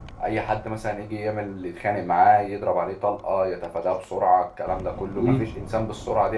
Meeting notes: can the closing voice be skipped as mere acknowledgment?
Yes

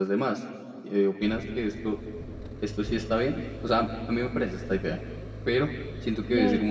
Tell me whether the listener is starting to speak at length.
No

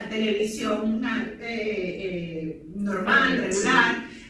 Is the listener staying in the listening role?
Yes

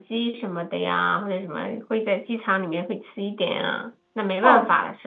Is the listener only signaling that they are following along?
No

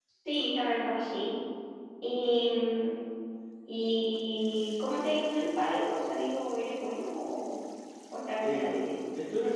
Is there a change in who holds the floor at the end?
Yes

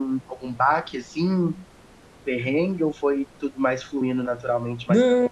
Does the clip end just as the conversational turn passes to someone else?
Yes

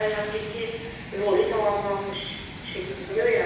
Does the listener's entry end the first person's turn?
No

